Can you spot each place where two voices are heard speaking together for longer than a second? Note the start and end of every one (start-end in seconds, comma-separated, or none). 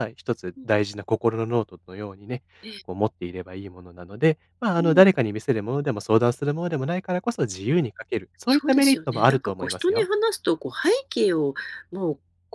8.5-10.0